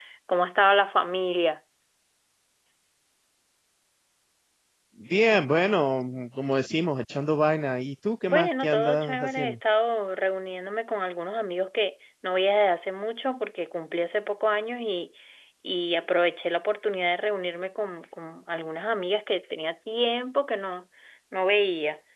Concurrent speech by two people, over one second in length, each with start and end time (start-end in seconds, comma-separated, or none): 8.2-9.6